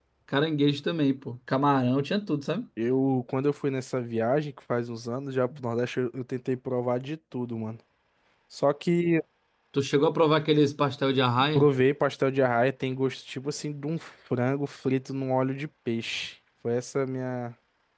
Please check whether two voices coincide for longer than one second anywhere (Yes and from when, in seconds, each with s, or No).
No